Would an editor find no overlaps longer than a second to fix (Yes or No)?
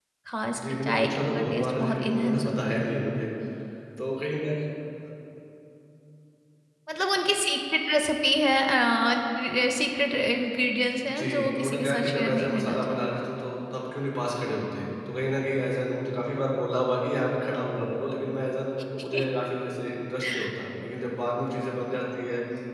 No